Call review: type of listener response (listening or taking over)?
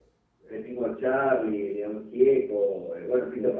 listening